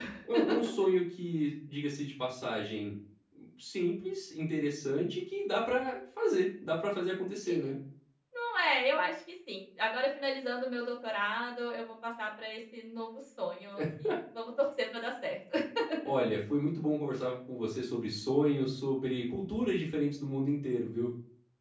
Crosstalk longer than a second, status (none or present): none